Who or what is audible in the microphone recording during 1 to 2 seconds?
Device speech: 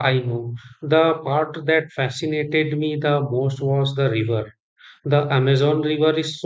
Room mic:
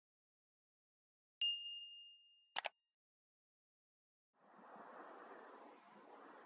neither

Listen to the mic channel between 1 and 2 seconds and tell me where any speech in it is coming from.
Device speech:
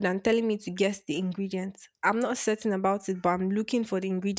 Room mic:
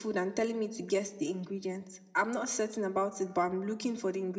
echo only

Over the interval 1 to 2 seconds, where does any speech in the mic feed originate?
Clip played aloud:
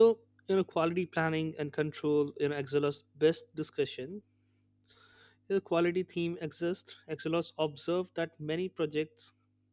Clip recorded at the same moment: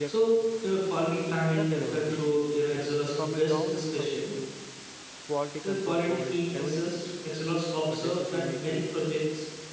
both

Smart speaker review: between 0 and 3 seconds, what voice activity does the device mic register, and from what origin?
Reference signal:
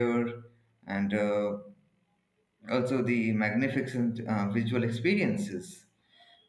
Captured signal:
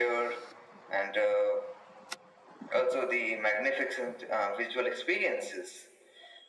echo only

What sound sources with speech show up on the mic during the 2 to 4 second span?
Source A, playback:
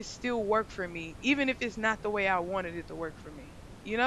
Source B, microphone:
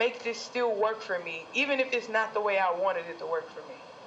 echo only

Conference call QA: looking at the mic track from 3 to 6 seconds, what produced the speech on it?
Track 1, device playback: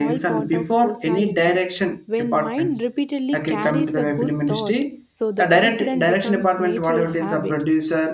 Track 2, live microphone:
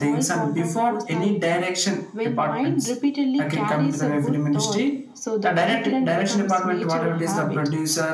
echo only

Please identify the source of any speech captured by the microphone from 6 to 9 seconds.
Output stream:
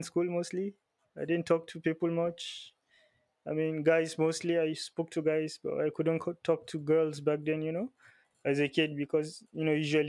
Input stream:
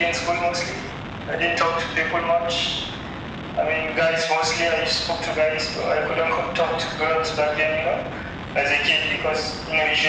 echo only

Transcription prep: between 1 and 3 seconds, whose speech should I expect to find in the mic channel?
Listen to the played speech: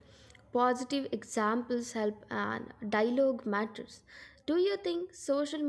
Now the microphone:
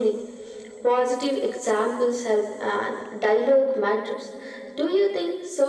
echo only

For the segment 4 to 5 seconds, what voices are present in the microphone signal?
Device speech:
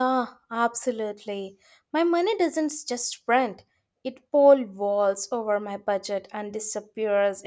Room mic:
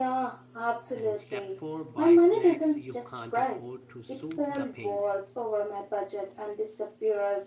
both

